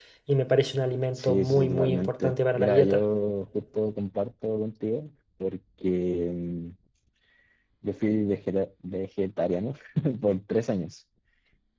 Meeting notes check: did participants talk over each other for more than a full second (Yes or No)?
Yes